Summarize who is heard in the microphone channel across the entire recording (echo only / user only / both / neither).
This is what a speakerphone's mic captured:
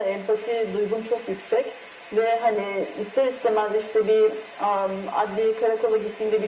echo only